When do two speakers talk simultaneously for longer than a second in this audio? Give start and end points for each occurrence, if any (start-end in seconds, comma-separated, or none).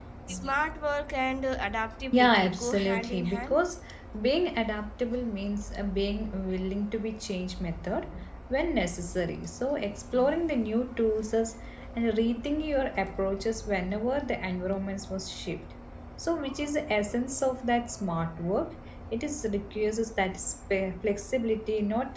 2.1-3.6